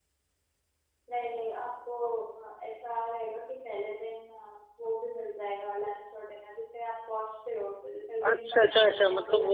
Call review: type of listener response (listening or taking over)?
taking over